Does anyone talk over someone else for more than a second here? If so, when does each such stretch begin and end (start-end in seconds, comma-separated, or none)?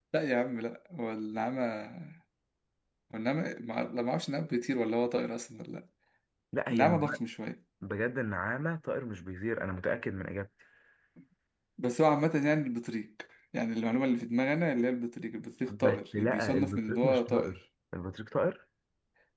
15.7-17.6